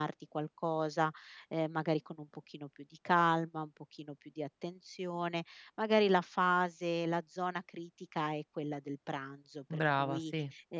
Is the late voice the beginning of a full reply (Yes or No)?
No